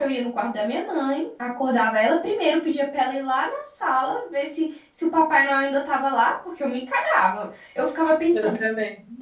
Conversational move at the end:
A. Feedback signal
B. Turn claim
A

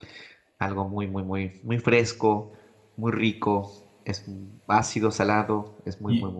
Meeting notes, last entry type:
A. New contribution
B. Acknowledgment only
A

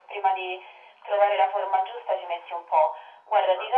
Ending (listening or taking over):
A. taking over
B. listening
B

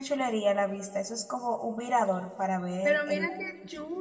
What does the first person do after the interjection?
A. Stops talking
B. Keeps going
A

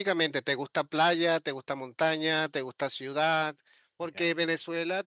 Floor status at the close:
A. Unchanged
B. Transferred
A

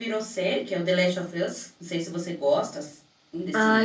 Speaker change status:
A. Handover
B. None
A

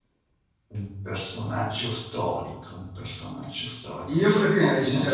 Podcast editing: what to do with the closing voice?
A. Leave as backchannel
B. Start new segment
B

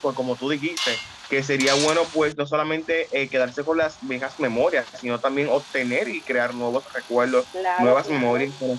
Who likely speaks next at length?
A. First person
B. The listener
A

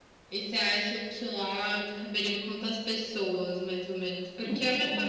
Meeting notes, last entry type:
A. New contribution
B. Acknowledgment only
B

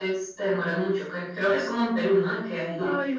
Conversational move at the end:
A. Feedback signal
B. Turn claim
A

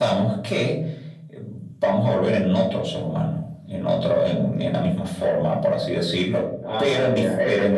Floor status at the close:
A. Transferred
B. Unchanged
A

